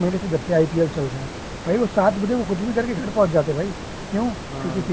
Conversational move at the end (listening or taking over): listening